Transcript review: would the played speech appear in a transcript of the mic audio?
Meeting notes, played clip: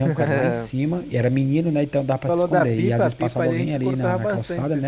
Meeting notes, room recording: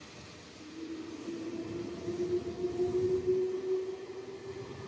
No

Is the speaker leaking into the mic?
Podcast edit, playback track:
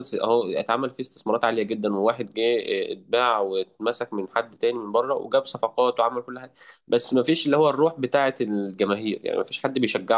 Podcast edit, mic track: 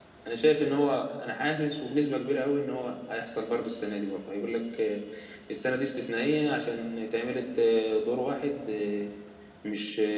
No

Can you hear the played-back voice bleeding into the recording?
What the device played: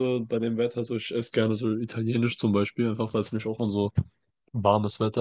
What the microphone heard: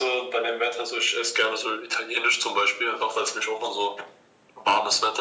Yes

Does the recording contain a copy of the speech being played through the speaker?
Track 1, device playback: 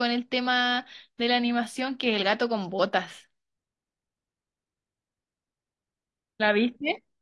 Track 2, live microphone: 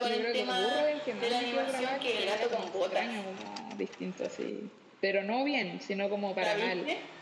Yes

